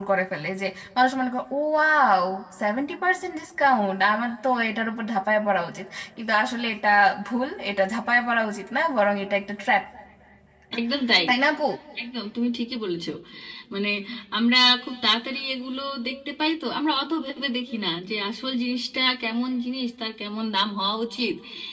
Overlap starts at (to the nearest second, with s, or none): none